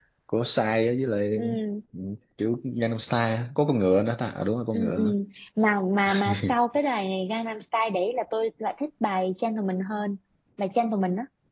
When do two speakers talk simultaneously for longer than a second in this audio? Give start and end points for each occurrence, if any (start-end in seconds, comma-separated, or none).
none